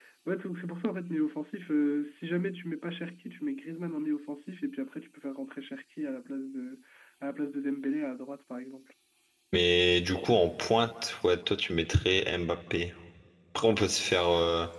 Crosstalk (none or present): none